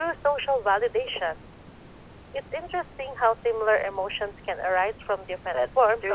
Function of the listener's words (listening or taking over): taking over